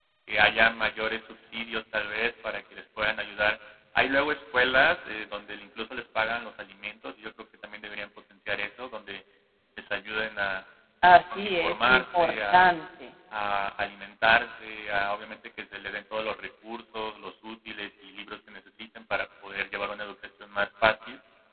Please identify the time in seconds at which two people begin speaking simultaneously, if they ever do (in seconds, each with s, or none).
11.3 s